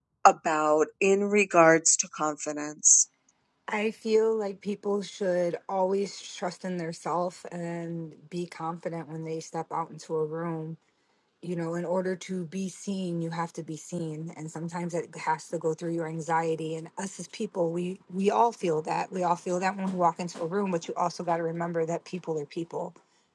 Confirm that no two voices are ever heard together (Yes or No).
Yes